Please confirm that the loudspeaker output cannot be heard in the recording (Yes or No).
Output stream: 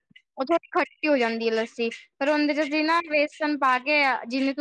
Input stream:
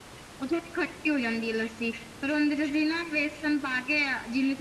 No